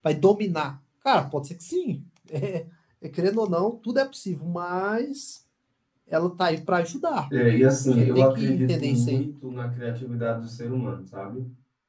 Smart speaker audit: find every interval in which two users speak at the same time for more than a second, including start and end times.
7.9-9.2

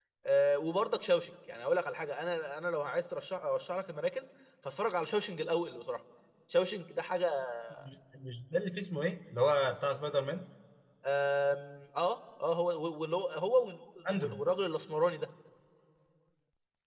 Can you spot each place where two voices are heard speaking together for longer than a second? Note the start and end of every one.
none

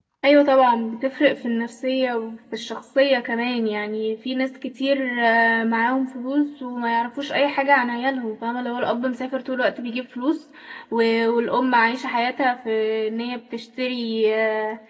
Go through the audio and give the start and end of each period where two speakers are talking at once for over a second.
none

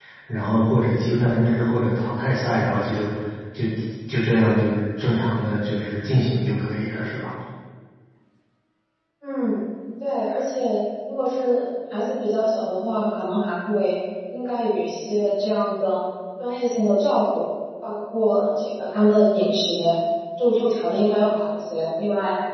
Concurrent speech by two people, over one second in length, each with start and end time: none

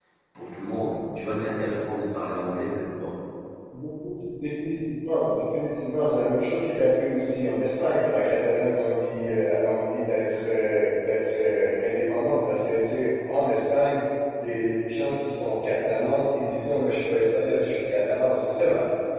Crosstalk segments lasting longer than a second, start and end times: none

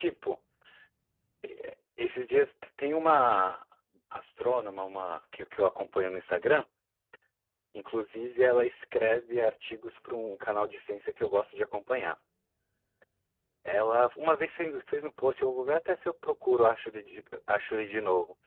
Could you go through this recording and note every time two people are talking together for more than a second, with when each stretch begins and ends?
none

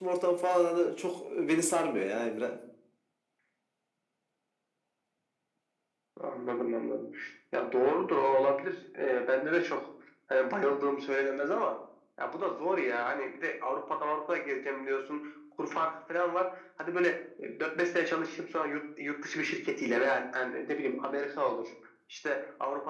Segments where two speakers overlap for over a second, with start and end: none

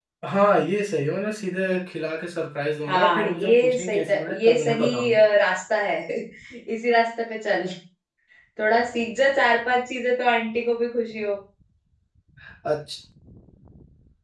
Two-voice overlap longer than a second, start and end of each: 2.9-5.2

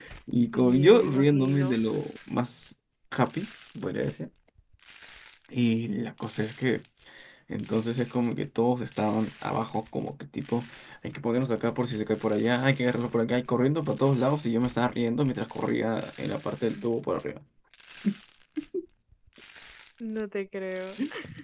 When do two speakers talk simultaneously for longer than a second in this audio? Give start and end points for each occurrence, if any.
0.5-1.8

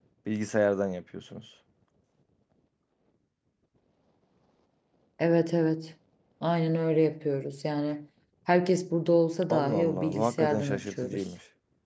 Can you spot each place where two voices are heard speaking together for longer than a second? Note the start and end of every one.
9.5-11.2

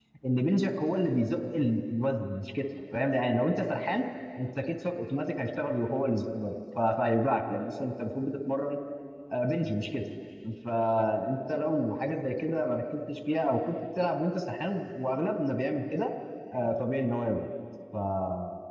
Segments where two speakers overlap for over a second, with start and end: none

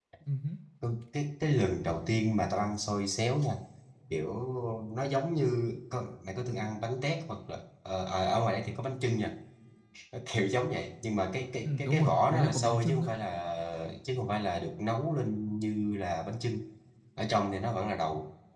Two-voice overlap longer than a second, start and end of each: 11.6-13.1

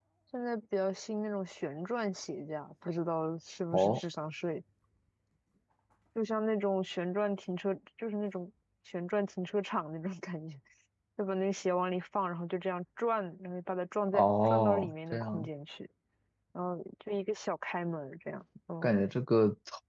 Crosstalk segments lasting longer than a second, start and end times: 14.1-15.5

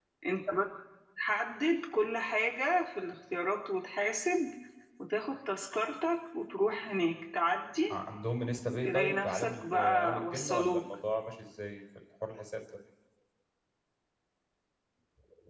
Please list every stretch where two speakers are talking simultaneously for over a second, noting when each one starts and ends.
8.8-10.9

